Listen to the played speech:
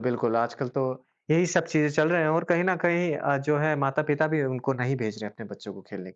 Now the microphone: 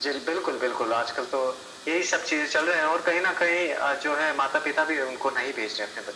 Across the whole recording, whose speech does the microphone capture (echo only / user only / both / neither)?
echo only